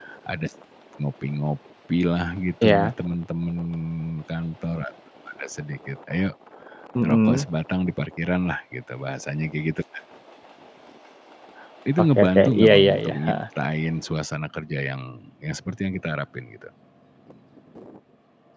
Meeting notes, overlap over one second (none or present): present